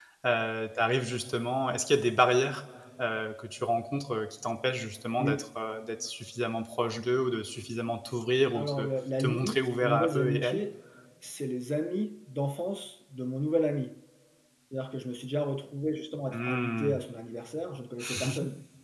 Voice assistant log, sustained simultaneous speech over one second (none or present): present